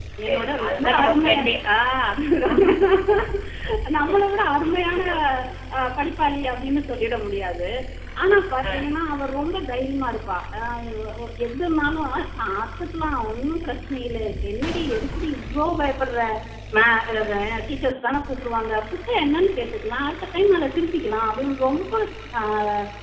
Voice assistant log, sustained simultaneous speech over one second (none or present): present